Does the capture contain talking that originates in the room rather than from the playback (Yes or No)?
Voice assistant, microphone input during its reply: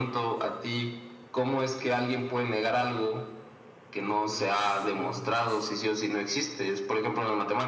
Yes